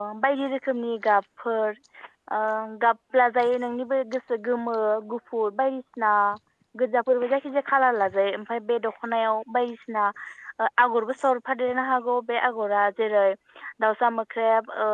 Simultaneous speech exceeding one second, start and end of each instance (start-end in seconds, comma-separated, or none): none